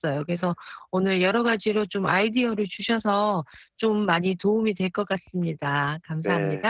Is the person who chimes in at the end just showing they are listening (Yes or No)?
No